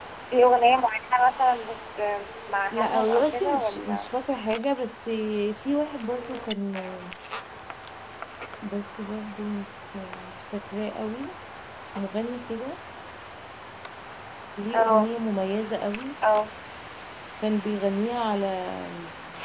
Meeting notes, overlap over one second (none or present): present